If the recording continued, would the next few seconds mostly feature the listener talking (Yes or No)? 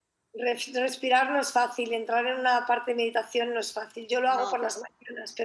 No